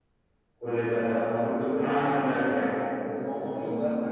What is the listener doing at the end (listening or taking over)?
taking over